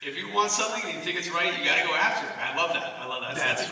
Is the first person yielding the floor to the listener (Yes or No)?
Yes